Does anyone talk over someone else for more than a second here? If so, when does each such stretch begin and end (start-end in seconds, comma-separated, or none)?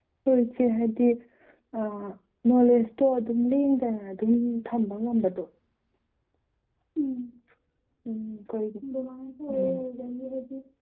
none